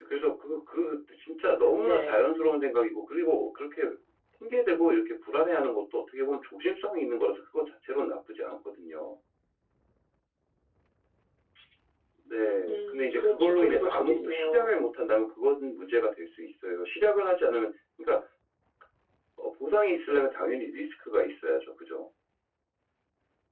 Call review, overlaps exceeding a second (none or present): present